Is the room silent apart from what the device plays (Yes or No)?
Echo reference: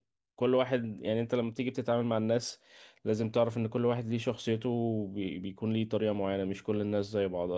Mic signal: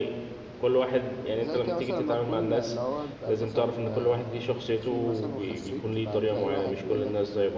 No